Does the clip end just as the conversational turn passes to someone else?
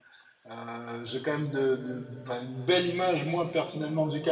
No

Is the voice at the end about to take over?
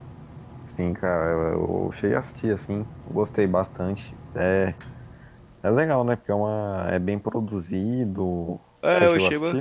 Yes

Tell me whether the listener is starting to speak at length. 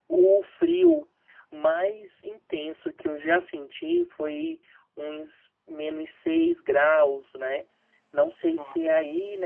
No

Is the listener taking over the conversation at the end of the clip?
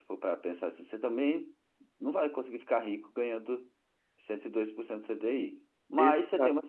No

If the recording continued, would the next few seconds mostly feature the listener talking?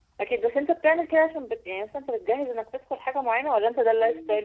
Yes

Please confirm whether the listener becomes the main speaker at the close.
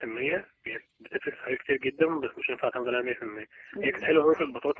No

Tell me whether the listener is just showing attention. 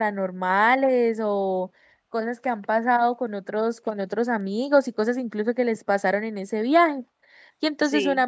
Yes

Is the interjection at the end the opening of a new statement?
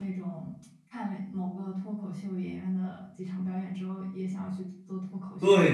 Yes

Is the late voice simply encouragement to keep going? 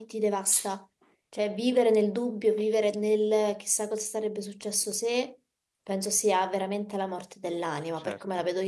Yes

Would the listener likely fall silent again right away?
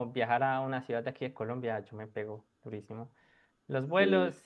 Yes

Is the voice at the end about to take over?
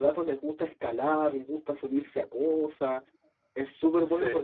No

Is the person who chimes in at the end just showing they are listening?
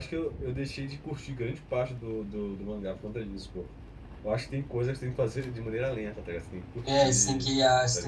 No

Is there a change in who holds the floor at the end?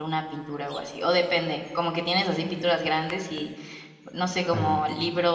No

